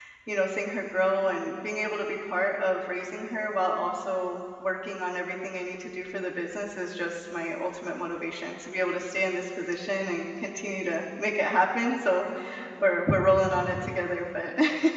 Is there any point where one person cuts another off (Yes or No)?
No